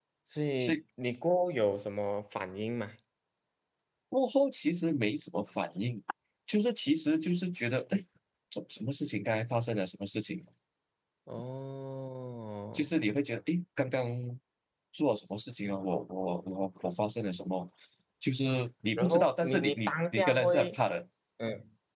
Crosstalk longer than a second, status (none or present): present